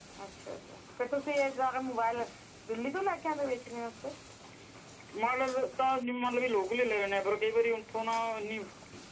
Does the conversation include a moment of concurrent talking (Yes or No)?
No